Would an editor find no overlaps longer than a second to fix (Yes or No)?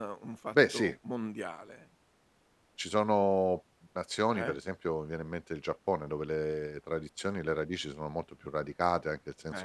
Yes